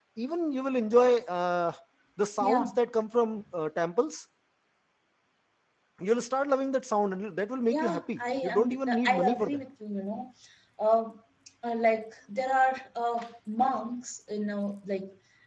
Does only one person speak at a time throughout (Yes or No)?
No